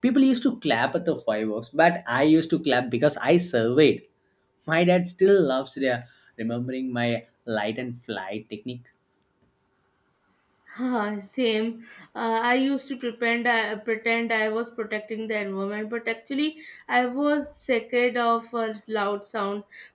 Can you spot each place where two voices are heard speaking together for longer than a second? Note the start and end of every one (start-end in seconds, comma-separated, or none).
none